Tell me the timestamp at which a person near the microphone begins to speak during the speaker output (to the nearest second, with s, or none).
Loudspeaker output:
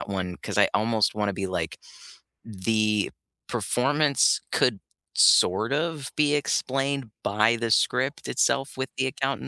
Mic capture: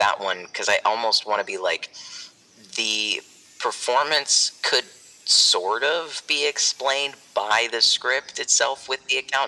none